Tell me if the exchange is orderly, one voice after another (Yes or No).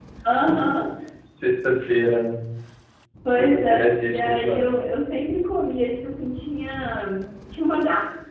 No